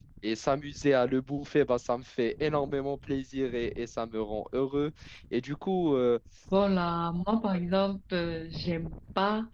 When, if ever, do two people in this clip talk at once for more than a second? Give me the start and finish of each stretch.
none

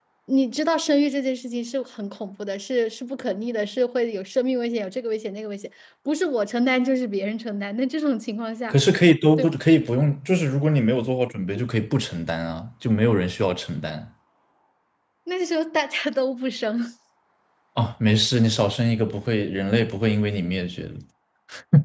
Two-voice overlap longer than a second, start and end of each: none

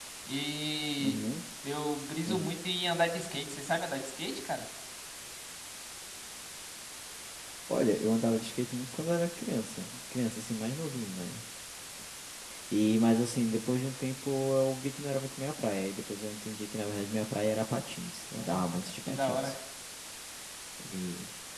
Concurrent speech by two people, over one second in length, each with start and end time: 18.3-19.5

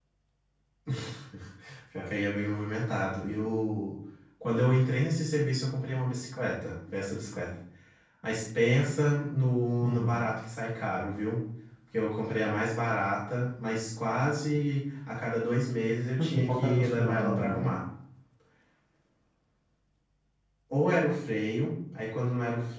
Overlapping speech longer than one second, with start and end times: 16.2-17.6

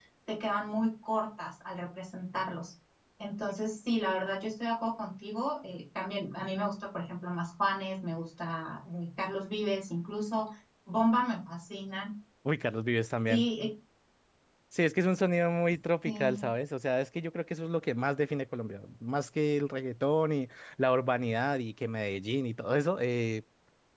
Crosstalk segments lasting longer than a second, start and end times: none

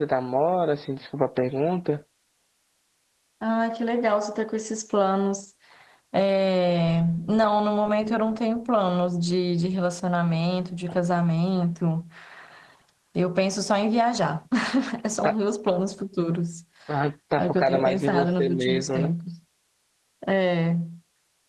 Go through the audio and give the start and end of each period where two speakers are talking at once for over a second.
17.4-19.1

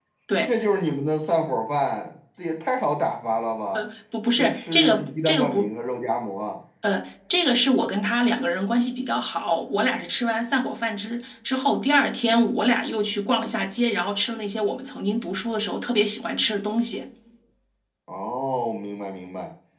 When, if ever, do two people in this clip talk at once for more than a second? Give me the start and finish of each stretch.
4.4-5.8

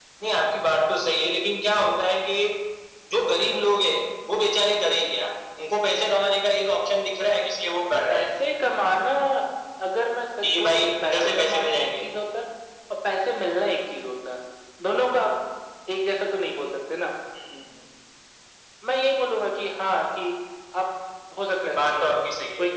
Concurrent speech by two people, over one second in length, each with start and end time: 10.4-12.0

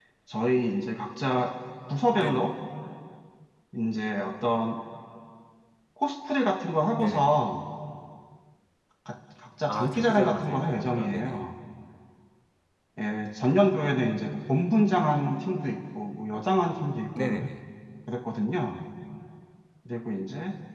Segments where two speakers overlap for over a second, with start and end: 9.7-11.4

